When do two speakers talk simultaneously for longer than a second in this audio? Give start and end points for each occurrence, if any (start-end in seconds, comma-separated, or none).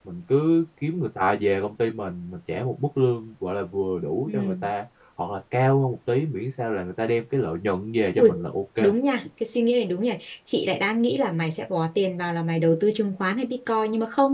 none